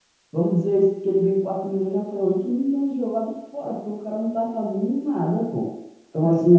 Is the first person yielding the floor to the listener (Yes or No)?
No